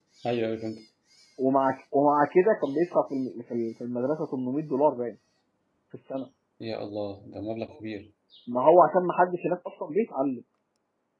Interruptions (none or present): none